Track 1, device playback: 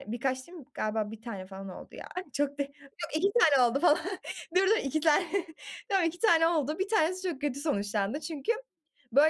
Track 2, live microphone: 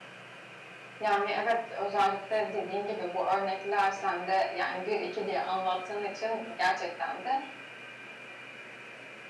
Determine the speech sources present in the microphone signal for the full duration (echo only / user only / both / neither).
user only